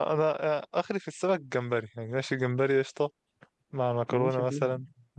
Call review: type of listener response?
listening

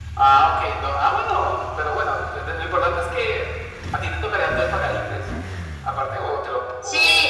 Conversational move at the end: taking over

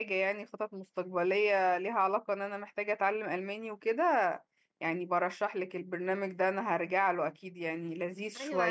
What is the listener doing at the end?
taking over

